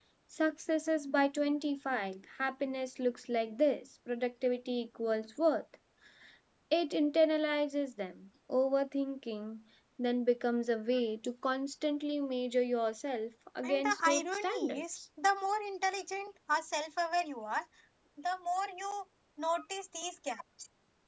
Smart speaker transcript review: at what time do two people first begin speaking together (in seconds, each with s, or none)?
13.6 s